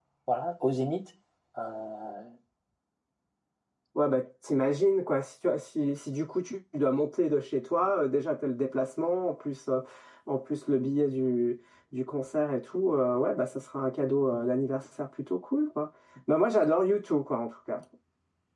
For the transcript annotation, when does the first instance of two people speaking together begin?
none

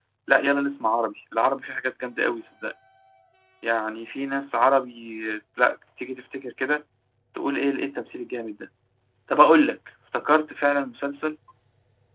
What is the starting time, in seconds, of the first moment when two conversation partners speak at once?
none

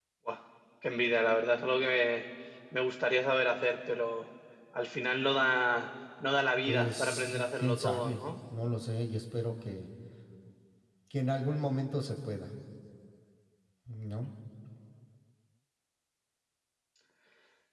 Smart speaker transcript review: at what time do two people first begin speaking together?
7 s

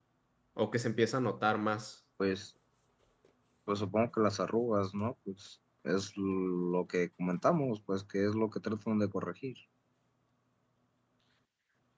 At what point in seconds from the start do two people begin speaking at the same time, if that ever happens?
none

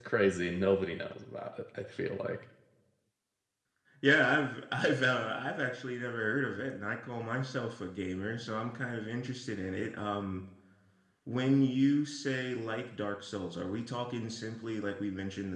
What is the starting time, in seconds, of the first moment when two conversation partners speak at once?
none

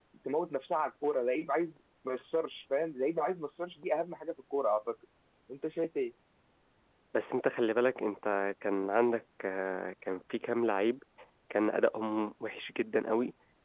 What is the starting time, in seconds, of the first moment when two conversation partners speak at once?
none

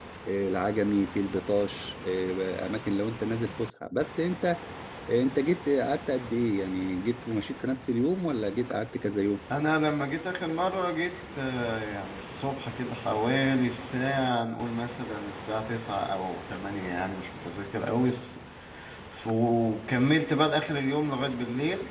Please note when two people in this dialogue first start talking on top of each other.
none

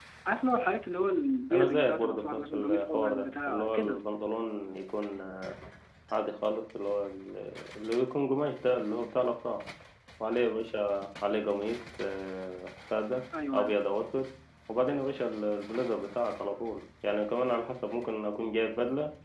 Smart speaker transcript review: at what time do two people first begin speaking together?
2 s

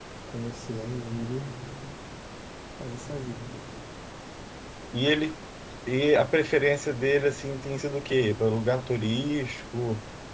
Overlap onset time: none

